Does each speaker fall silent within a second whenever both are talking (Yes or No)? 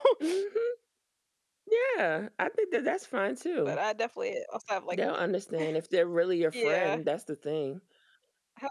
Yes